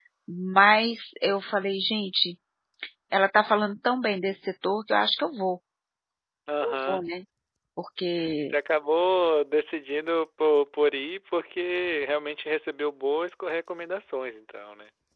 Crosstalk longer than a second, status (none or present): none